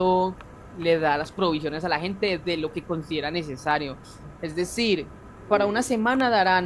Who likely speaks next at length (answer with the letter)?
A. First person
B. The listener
A